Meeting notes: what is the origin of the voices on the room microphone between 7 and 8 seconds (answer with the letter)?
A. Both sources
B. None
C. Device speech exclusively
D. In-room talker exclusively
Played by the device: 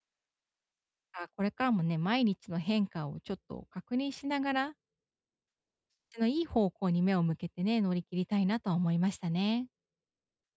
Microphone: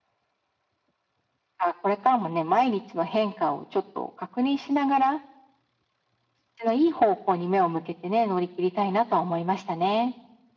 C